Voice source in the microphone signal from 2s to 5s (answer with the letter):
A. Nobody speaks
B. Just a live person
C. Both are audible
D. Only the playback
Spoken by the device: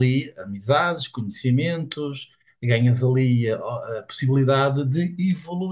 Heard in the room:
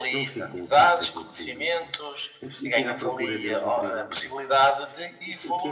C